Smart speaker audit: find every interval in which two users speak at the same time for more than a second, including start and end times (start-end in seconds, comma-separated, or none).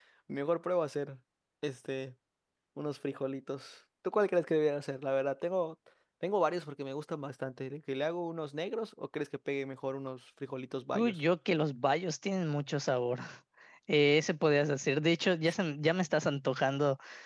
none